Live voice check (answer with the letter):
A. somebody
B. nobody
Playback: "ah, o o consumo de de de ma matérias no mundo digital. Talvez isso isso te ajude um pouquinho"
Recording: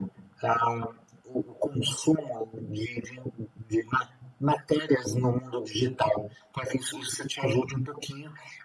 B